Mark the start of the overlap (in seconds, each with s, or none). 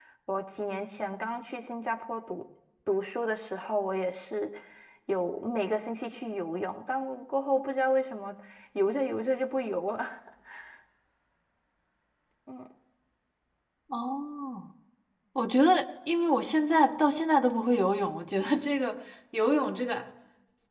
none